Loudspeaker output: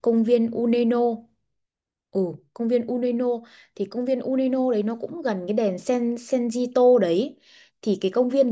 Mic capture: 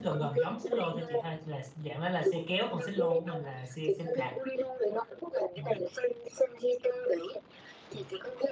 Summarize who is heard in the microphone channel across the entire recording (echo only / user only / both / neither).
both